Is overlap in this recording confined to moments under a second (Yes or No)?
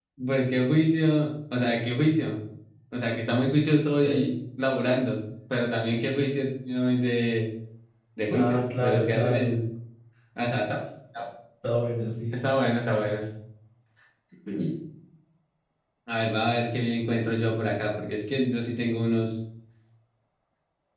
No